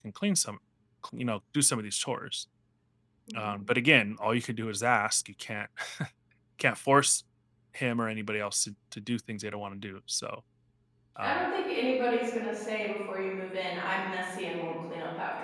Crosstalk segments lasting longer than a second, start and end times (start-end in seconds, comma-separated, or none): none